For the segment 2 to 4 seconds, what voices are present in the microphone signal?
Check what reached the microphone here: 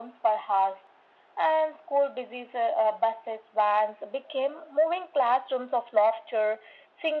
echo only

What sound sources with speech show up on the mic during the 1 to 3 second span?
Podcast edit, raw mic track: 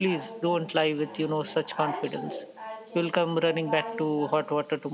both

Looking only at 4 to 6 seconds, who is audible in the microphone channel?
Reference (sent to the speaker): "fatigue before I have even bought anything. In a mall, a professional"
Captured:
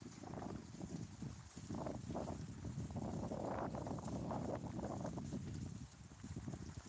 neither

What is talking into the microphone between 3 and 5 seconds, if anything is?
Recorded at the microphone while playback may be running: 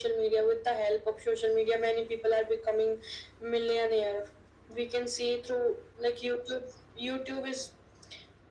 echo only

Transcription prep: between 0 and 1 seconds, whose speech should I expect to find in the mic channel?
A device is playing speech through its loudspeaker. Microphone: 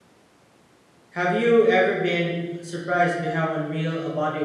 neither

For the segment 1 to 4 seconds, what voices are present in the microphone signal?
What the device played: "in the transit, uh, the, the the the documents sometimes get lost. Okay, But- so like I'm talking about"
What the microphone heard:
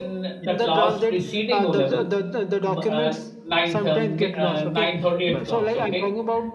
both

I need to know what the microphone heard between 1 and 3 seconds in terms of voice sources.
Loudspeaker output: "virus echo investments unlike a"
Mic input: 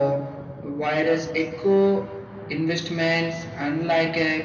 echo only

